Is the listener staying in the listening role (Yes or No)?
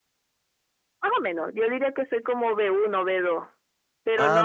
Yes